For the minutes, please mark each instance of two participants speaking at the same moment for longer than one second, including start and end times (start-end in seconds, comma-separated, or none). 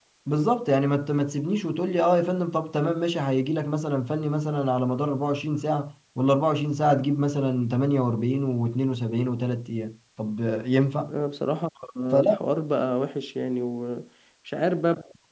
none